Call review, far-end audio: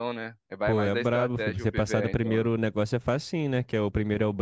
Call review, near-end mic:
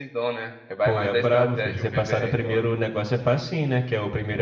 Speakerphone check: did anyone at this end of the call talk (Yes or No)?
No